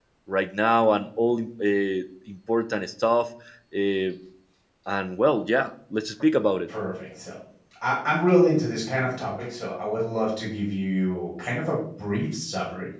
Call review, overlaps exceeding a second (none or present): none